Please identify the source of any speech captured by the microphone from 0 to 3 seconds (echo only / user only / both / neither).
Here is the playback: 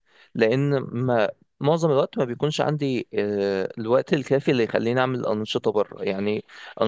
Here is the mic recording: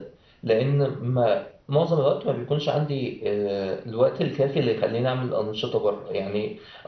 echo only